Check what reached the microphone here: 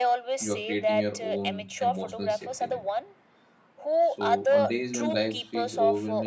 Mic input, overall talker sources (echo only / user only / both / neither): both